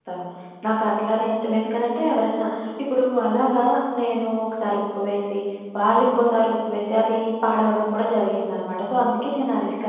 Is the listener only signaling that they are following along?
No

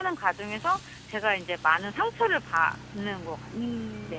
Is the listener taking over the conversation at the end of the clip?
Yes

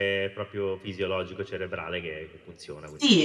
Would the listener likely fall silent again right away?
No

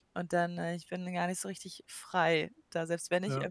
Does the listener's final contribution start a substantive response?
No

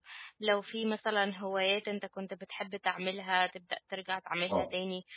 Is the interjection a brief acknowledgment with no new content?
Yes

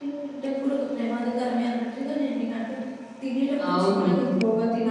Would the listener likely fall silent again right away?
Yes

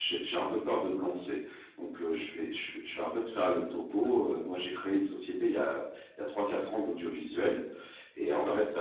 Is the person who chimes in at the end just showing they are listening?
Yes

